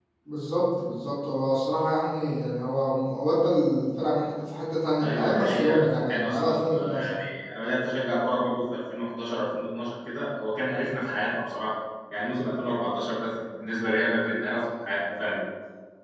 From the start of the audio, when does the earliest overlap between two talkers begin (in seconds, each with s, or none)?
5.0 s